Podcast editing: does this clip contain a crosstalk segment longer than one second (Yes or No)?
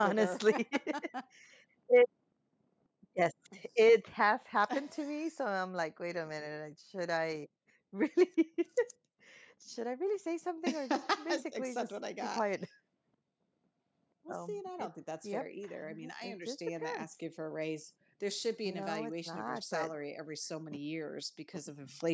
Yes